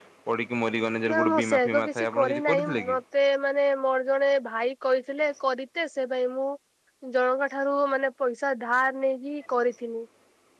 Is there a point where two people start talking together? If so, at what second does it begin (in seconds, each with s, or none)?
1.1 s